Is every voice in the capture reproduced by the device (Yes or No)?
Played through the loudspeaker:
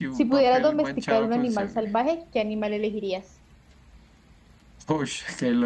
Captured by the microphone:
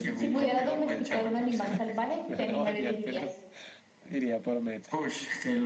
No